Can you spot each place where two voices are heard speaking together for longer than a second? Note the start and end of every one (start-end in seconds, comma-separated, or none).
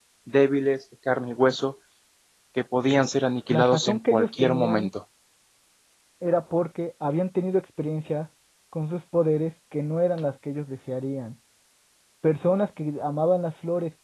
3.5-4.9